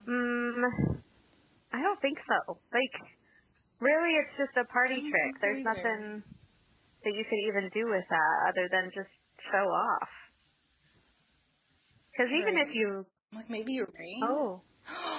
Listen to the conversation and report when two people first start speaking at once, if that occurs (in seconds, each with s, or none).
4.9 s